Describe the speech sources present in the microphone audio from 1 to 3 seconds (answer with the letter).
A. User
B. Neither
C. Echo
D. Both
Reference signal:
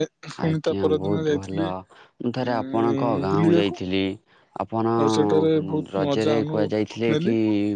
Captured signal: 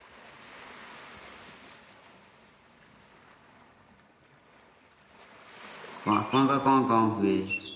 B